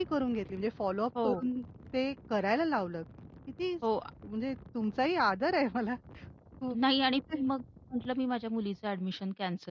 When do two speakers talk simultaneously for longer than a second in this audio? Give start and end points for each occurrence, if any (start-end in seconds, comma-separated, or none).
none